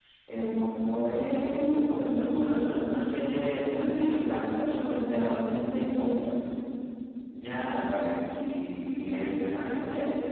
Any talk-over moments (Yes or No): No